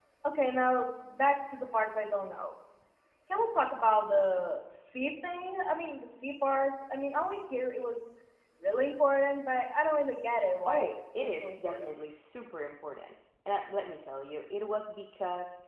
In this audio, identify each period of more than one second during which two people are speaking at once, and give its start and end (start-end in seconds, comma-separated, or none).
10.7-11.9